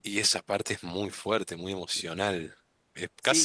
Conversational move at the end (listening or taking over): taking over